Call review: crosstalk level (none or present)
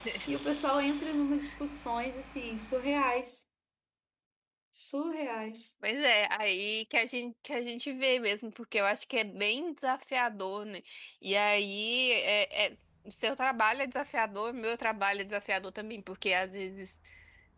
none